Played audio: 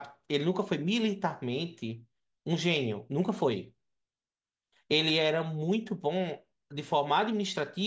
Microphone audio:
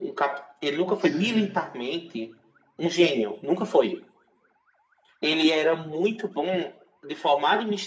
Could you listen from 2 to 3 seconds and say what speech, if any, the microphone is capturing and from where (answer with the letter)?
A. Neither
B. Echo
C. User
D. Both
B